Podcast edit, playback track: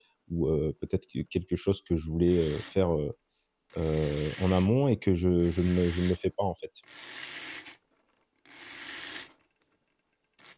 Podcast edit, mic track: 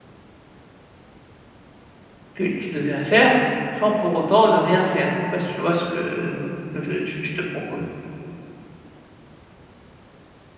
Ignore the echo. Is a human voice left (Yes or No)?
Yes